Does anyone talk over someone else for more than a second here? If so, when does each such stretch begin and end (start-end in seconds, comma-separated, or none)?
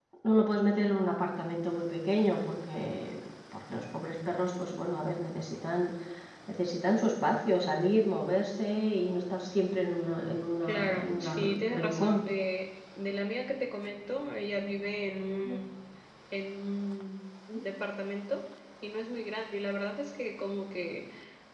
10.7-12.2